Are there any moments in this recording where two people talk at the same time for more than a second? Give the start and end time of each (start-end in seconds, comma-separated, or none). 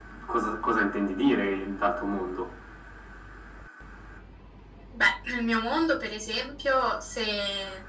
none